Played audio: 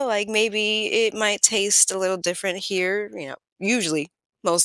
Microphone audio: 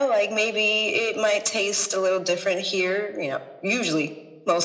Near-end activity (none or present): none